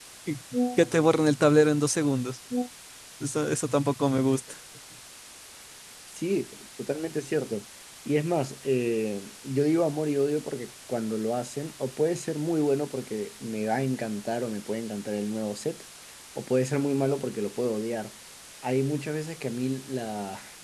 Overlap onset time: none

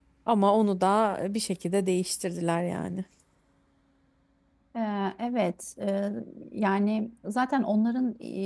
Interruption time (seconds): none

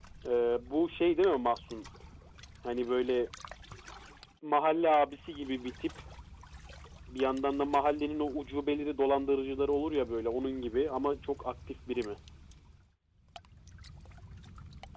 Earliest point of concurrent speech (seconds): none

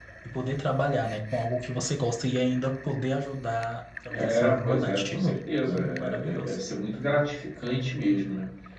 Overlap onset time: 4.1 s

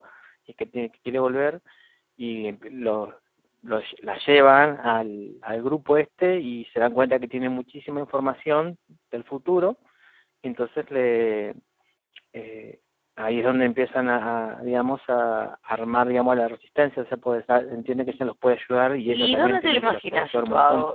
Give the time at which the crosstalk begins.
19.1 s

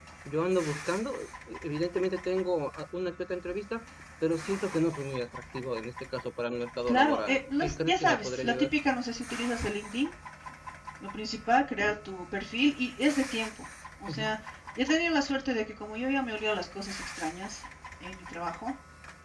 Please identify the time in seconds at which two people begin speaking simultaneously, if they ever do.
6.9 s

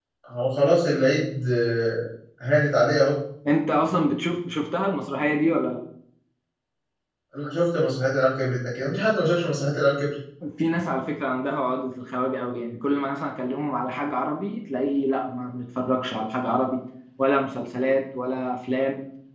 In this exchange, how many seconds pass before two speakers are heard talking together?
none

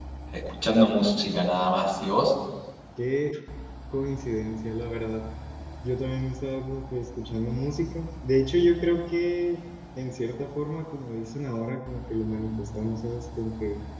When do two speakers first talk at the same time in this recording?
none

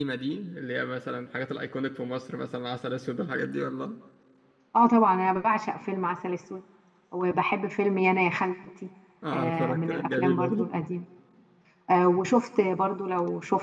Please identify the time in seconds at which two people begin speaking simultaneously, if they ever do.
9.3 s

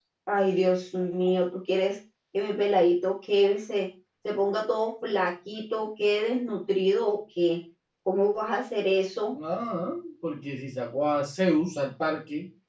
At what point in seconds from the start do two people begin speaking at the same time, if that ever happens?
none

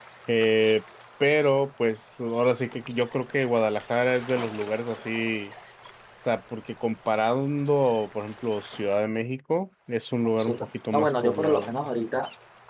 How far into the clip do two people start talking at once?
10.4 s

